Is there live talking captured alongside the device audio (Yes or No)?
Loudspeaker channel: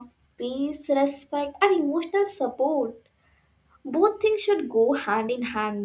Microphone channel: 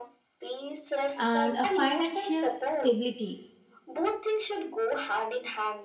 Yes